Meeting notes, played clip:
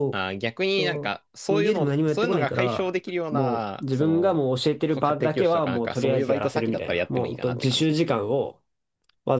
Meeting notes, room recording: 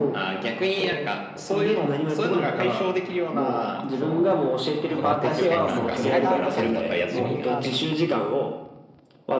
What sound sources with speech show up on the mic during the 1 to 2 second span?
echo only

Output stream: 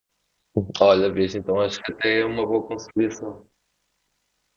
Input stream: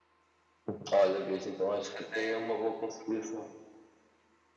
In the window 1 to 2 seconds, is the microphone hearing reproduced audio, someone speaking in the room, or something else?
echo only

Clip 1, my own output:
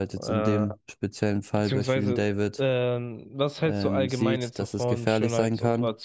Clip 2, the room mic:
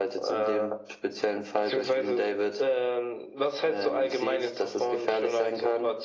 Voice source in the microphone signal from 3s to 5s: echo only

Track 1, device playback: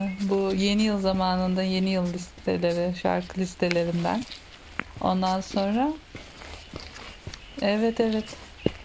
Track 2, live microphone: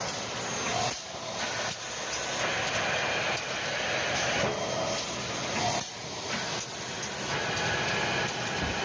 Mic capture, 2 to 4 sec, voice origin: neither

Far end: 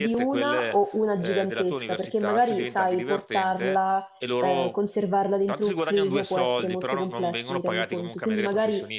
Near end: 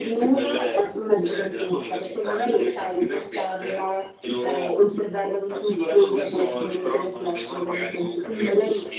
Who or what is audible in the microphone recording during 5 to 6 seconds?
echo only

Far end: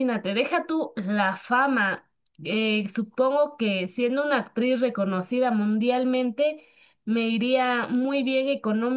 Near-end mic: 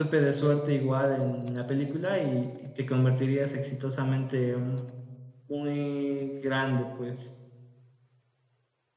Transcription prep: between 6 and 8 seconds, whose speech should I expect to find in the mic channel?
user only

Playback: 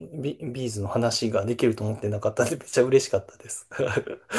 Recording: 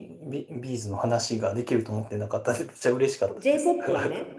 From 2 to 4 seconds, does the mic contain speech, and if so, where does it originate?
both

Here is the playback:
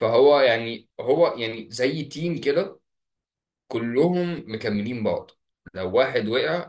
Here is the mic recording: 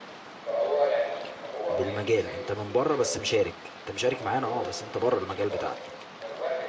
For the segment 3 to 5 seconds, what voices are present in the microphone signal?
both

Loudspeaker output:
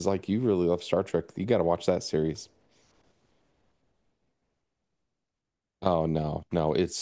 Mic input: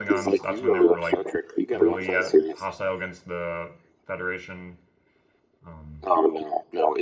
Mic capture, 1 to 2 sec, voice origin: both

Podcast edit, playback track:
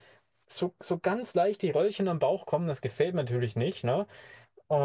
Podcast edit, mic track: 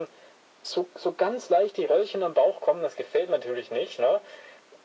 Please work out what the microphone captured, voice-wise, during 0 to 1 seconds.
echo only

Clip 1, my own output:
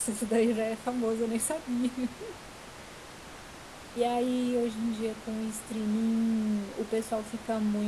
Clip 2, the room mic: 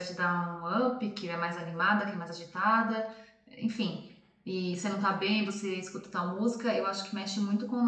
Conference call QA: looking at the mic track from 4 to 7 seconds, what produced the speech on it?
user only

